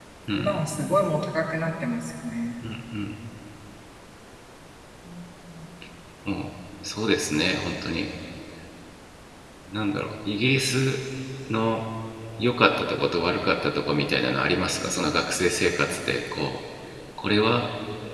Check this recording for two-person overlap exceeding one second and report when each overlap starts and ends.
none

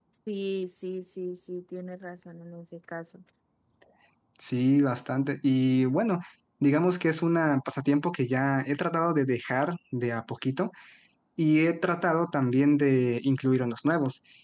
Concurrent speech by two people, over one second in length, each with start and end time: none

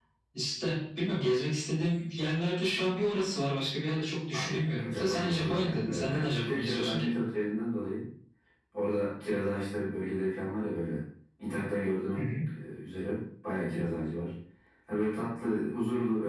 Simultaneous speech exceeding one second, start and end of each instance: 4.3-7.1

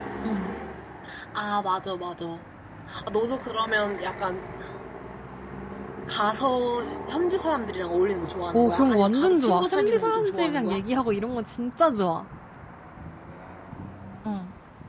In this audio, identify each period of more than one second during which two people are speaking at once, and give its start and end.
8.5-10.8

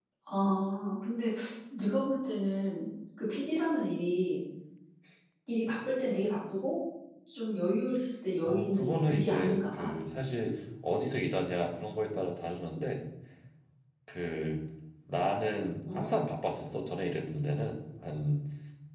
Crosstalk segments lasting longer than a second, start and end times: 8.4-9.9

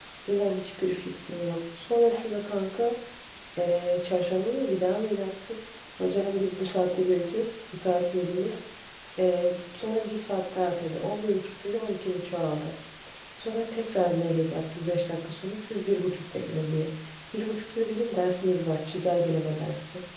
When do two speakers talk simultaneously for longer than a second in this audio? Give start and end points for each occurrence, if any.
none

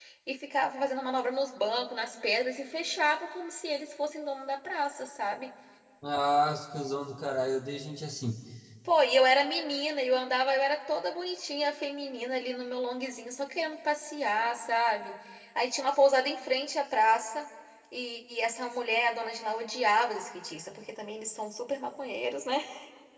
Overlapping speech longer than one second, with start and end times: none

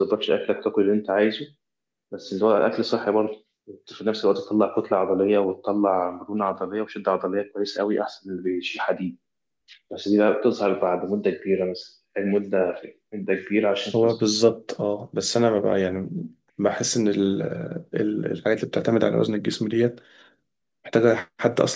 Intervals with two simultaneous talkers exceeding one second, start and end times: none

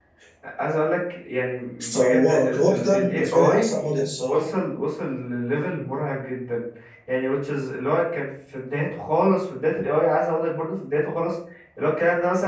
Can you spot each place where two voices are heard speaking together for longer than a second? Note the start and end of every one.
1.8-3.7

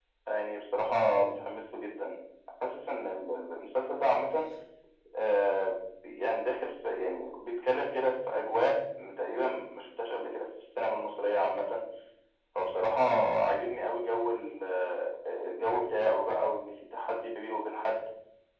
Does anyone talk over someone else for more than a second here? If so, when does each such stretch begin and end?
none

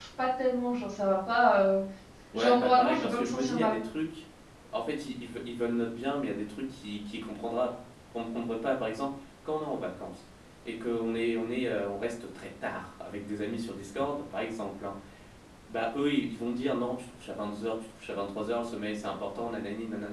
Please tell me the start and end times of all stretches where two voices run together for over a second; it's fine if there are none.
2.3-3.8

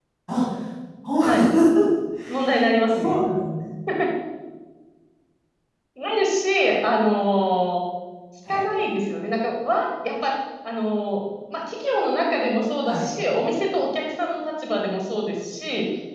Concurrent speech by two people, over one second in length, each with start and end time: none

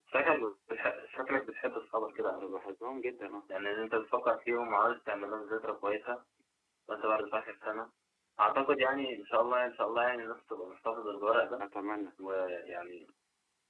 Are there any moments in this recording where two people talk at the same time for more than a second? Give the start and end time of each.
none

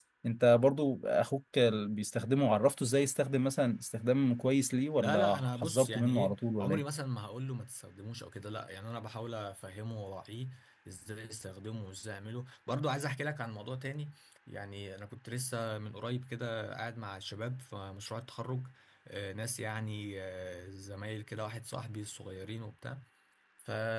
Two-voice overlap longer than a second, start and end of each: 5.0-6.8

